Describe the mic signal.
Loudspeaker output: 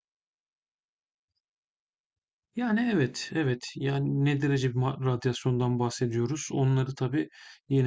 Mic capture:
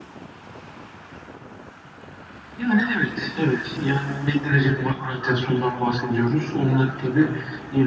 echo only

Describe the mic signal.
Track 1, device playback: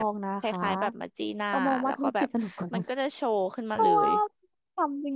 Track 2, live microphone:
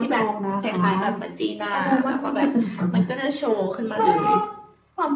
echo only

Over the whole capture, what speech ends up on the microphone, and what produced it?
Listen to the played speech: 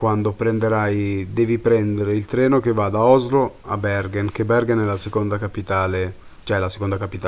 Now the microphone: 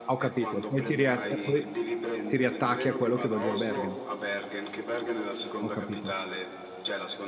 both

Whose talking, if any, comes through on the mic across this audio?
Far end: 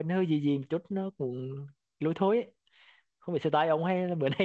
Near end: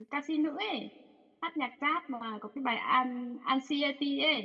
user only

